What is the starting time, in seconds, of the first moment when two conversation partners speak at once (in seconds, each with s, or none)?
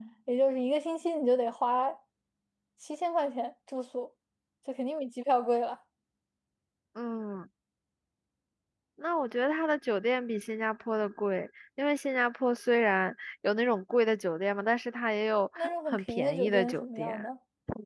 15.6 s